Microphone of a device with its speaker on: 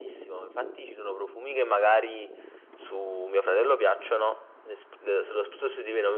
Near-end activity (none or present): none